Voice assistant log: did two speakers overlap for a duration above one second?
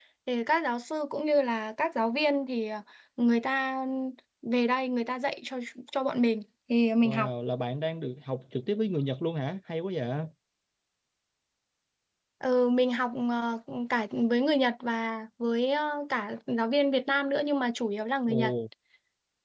No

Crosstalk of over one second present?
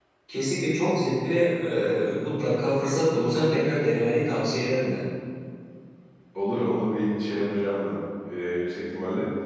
No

